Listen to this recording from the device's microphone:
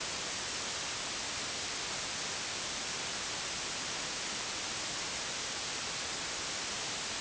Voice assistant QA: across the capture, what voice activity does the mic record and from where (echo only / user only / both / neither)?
neither